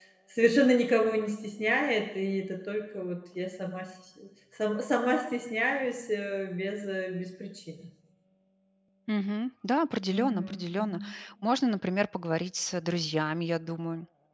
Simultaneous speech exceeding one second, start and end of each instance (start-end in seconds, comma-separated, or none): none